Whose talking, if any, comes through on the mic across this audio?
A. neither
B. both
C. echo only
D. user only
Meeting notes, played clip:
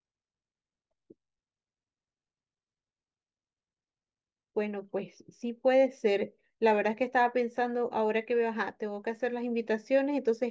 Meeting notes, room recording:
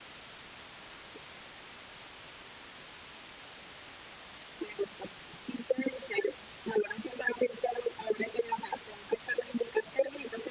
C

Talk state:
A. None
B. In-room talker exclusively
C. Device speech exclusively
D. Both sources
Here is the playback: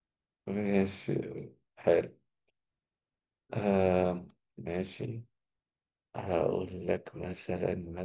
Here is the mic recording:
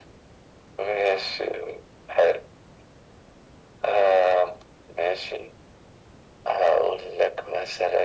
C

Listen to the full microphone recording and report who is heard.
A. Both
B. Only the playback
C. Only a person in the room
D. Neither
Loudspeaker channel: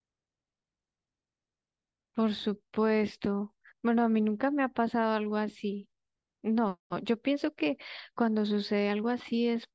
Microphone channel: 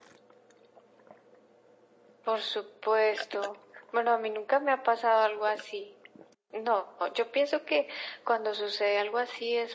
B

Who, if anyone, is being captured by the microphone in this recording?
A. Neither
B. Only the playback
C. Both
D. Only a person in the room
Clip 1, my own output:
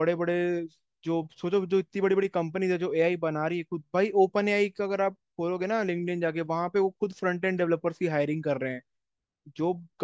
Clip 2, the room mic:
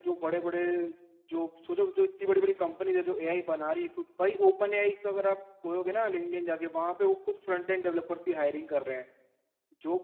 B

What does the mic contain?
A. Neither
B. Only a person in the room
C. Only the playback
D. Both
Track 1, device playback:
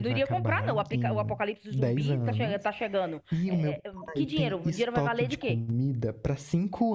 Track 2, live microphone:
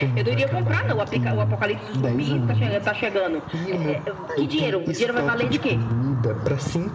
C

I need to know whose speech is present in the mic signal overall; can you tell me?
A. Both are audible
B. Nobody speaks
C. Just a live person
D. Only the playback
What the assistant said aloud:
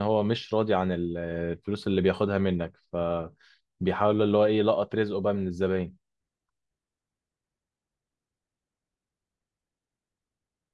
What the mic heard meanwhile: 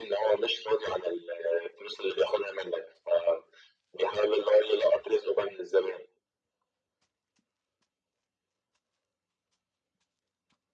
D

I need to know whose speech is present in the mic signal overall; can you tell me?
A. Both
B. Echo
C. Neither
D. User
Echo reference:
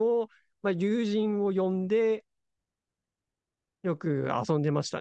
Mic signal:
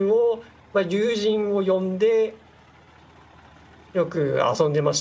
B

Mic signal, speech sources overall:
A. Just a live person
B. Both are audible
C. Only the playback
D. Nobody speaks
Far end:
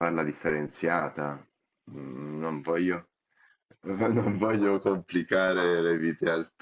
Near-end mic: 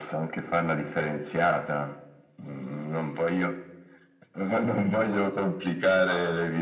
C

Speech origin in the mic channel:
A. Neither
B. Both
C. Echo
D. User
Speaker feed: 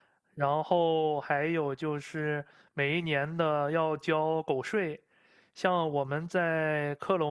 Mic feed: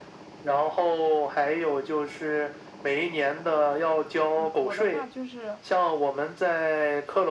B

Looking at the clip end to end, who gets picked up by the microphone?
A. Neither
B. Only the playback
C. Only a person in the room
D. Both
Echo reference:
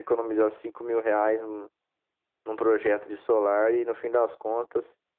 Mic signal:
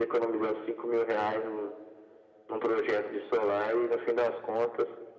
B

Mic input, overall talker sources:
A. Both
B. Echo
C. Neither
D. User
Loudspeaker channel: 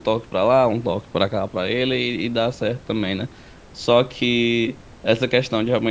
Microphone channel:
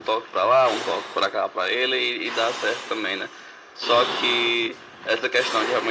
B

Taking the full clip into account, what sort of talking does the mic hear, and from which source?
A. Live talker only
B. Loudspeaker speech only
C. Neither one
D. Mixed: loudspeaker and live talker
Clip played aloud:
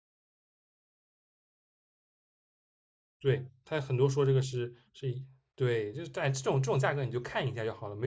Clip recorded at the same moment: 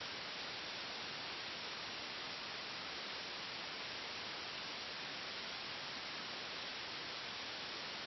C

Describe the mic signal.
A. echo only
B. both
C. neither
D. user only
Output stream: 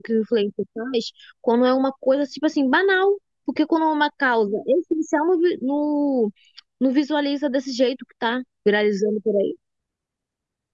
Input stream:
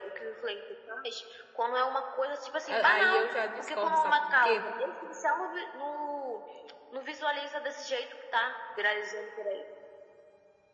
B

